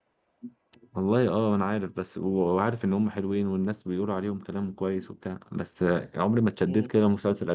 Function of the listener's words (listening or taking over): listening